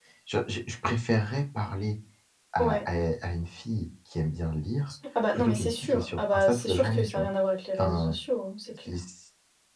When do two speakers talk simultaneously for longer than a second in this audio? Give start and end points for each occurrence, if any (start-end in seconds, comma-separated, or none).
5.3-7.3